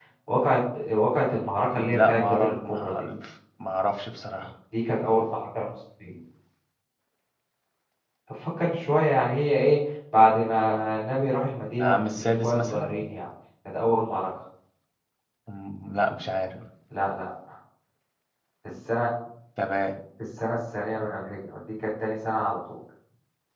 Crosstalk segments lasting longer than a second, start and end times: 1.8-3.1, 11.8-13.0

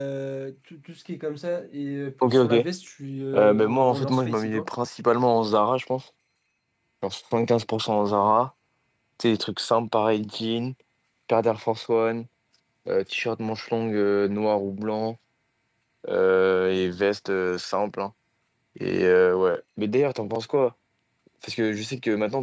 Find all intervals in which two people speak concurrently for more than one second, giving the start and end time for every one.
3.4-4.7

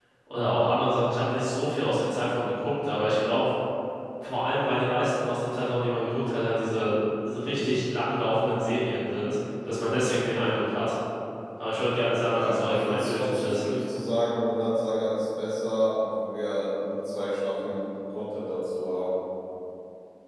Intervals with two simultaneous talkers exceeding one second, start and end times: 12.3-13.6

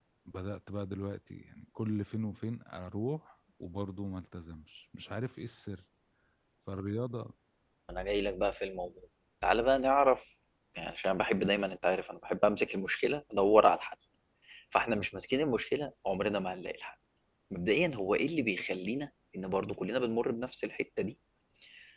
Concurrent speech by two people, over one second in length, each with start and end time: none

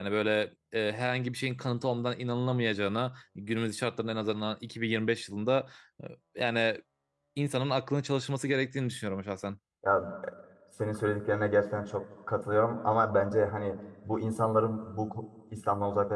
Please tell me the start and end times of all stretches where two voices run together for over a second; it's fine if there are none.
none

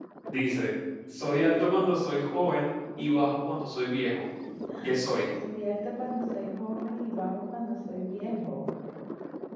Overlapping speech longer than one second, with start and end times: none

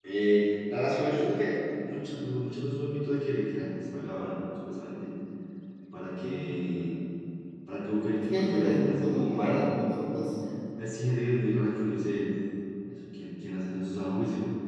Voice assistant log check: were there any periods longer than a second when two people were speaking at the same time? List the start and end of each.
8.2-9.6

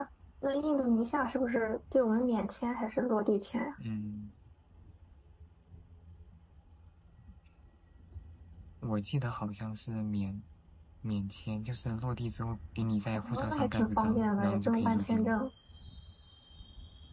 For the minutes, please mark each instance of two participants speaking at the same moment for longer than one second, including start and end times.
13.1-15.4

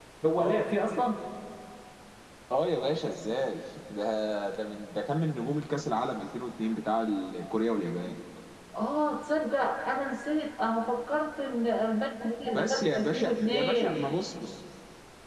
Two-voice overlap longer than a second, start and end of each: 12.4-14.0

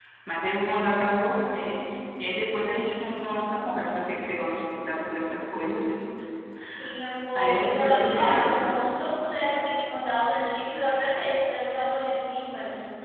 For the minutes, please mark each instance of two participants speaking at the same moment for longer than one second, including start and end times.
7.4-8.6

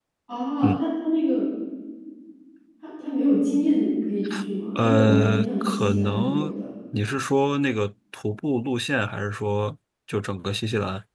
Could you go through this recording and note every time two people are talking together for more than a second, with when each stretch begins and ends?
4.8-6.5

